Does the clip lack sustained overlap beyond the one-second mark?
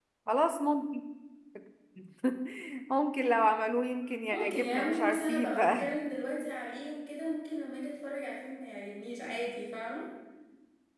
No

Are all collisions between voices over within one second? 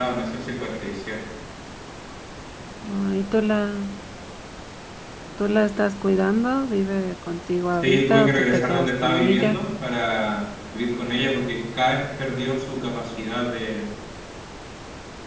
No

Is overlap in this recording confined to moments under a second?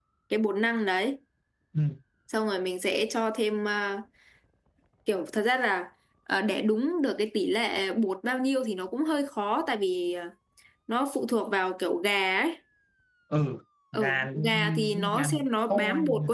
No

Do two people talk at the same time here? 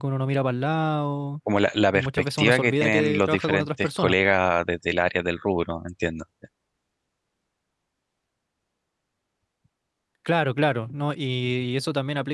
Yes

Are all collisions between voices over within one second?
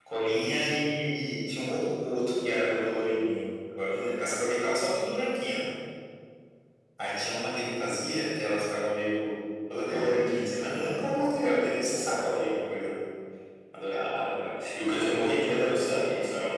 No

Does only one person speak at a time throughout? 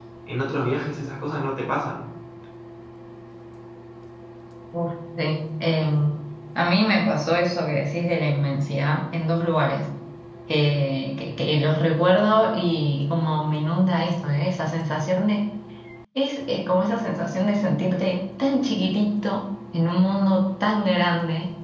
Yes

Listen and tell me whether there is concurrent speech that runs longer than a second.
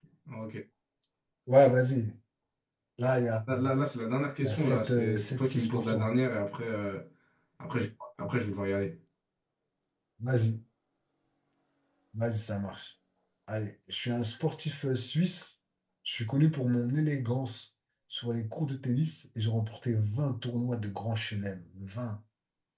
Yes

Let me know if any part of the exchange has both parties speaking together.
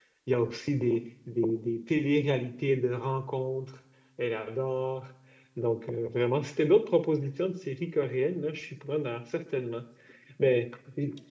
No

